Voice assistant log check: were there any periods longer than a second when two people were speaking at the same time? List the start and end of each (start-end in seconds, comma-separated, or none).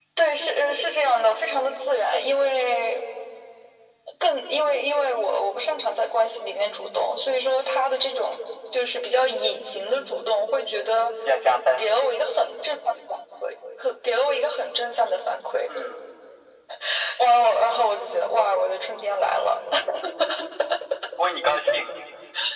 none